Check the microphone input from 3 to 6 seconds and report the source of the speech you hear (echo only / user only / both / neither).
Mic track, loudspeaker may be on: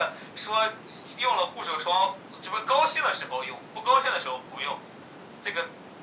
echo only